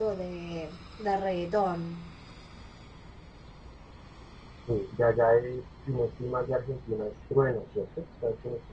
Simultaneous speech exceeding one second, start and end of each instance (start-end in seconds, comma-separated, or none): none